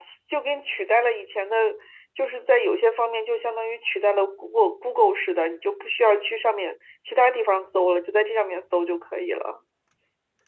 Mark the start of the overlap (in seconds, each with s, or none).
none